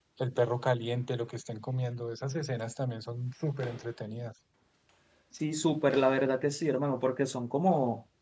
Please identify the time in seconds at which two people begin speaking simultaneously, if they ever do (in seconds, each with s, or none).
none